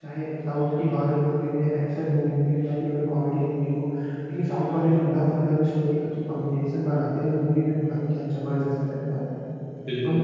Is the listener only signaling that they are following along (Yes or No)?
No